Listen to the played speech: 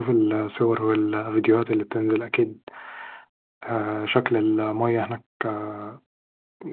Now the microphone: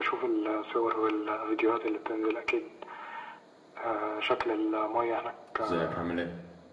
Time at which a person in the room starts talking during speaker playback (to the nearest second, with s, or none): 6 s